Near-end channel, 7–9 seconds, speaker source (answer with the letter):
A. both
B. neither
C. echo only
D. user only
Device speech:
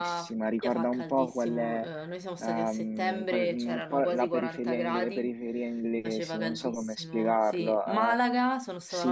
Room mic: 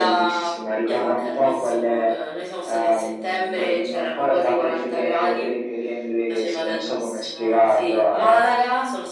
C